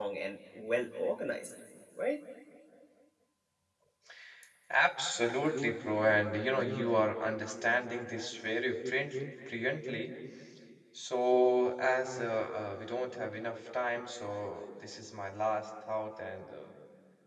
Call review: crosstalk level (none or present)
none